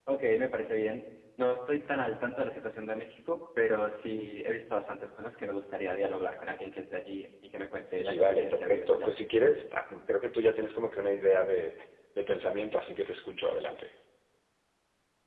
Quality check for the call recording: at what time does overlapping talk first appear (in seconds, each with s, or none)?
7.8 s